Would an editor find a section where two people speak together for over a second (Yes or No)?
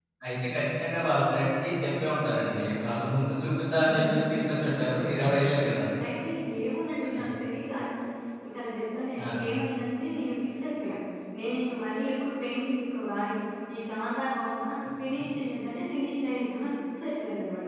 No